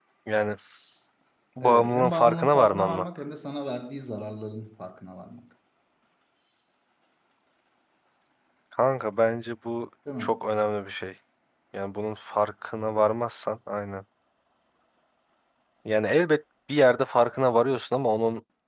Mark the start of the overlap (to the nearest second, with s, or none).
2 s